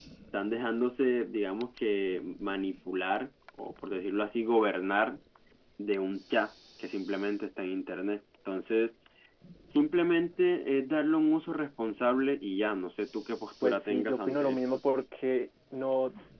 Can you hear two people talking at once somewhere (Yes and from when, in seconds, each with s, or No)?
Yes, from 13.6 s